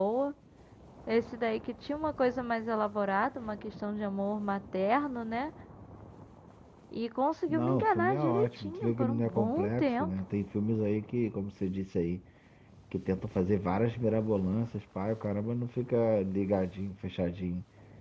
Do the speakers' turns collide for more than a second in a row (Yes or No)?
Yes